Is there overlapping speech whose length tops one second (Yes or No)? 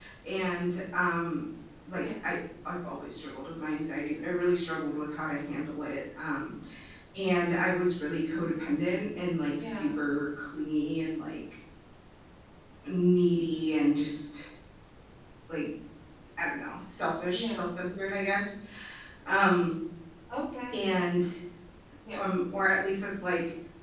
No